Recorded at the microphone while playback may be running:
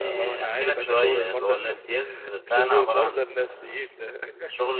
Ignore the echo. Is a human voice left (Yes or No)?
Yes